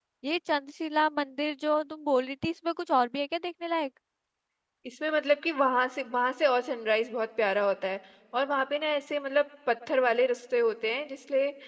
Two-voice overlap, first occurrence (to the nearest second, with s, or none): none